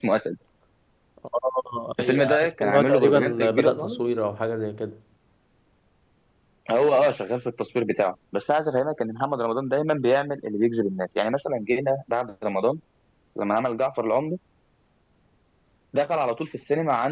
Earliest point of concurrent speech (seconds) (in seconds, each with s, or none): 2.0 s